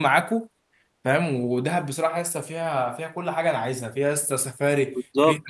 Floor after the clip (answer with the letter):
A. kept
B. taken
A